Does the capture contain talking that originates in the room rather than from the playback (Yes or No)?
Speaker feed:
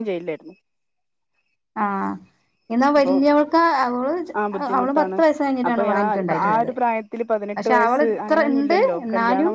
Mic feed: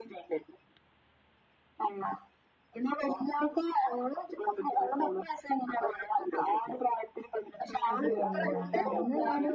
Yes